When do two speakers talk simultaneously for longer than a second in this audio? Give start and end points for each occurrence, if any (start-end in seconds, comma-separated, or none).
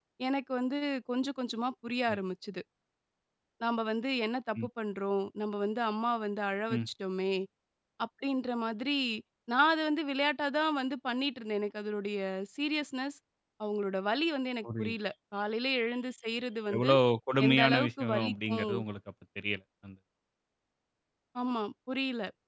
17.5-18.7